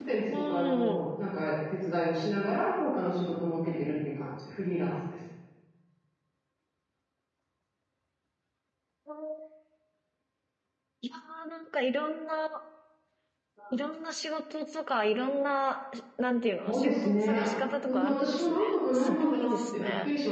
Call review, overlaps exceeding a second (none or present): present